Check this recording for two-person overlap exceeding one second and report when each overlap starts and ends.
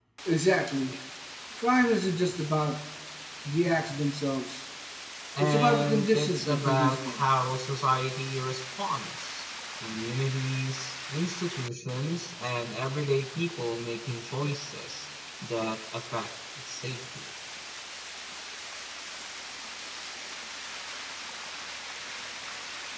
5.4-7.2

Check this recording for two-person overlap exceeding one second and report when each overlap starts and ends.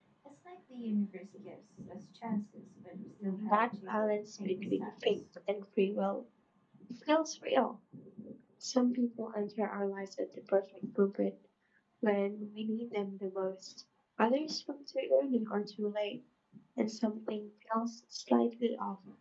3.5-5.2

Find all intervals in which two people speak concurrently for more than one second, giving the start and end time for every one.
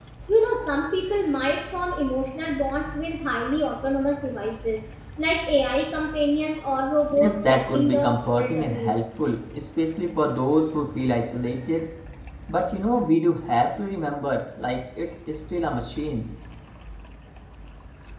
7.1-9.0

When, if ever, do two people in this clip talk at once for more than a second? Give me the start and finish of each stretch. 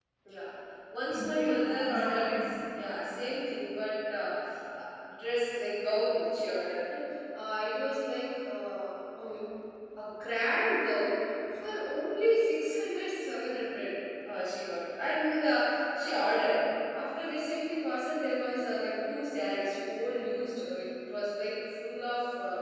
1.1-2.5

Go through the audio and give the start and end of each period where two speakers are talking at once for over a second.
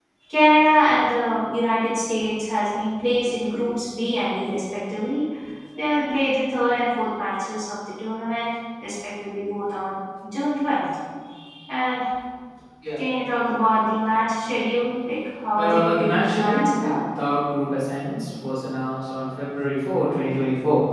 15.6-16.9

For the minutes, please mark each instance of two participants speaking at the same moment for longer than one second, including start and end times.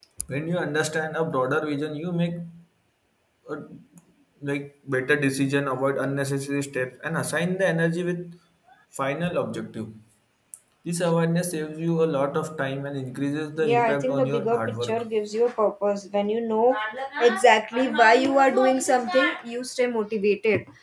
13.6-15.1

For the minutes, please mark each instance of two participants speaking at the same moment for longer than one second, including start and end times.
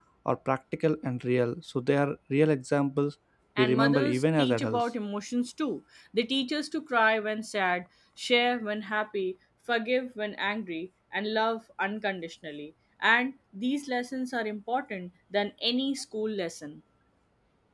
3.6-4.8

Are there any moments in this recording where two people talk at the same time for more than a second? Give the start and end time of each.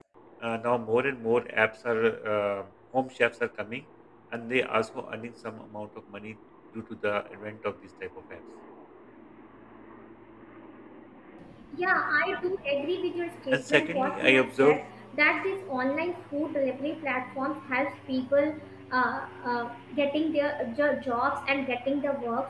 13.5-14.8

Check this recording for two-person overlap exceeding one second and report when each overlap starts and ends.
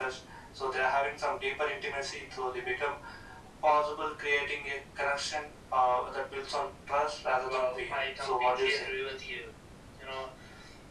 7.5-8.9

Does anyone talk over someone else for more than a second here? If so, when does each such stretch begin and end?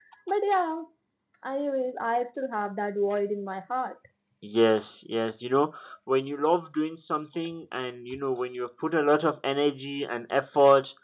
none

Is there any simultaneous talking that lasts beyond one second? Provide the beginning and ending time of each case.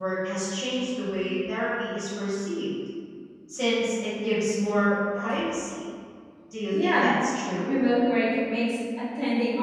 none

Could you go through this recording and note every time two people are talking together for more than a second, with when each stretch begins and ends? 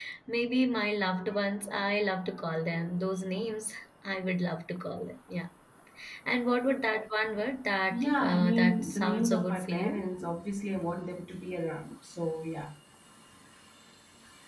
7.9-10.0

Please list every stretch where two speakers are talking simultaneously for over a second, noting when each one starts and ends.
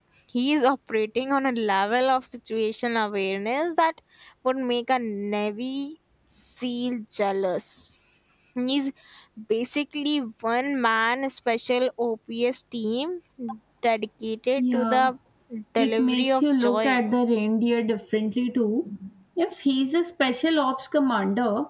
15.8-17.0

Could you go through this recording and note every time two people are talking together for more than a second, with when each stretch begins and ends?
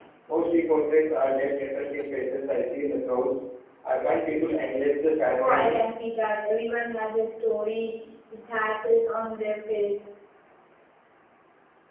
none

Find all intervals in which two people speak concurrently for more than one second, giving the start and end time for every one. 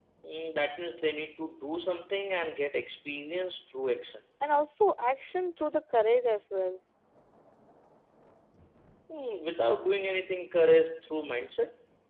none

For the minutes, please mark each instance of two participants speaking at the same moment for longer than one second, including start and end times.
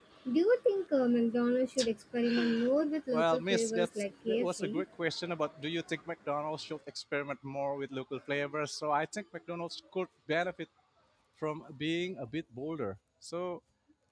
3.1-4.8

